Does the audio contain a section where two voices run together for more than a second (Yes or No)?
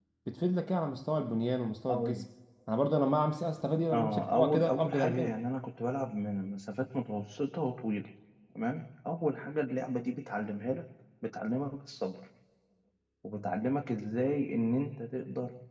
Yes